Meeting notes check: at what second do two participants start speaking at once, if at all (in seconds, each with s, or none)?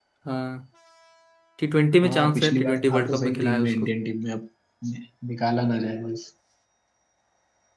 2.0 s